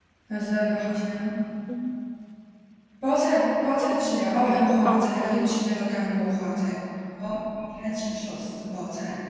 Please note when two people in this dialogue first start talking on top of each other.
4.1 s

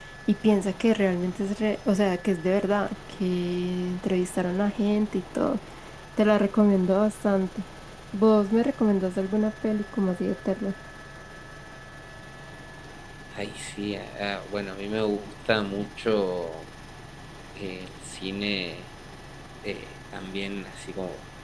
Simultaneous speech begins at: none

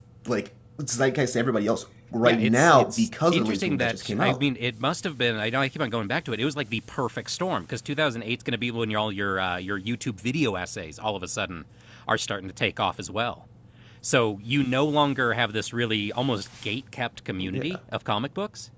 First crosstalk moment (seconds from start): 2.2 s

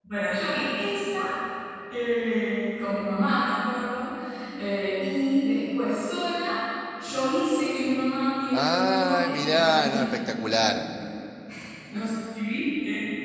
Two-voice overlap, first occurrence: 8.5 s

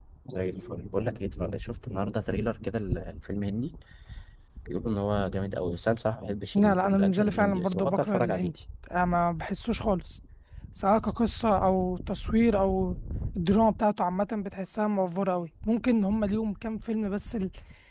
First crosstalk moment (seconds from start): 6.5 s

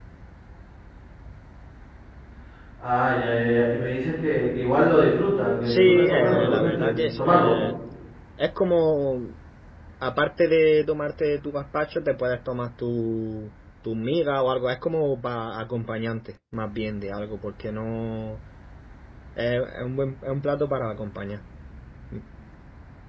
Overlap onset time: 5.7 s

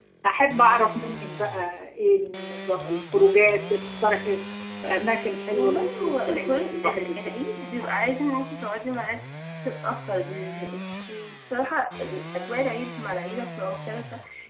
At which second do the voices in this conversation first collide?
5.5 s

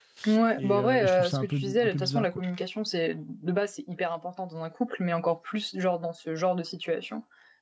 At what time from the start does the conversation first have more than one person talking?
0.6 s

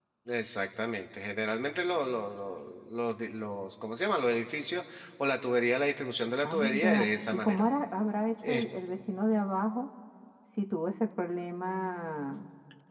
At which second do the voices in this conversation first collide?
6.4 s

